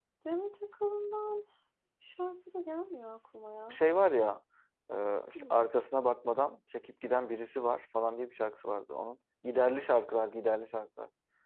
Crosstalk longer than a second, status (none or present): none